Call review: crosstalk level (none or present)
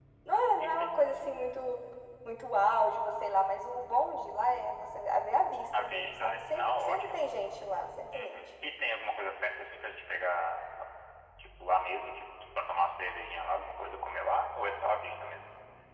present